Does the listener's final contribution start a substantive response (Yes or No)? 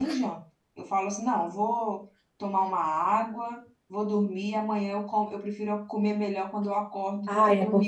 Yes